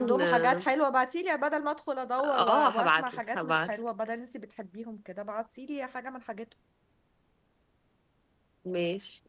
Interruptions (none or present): present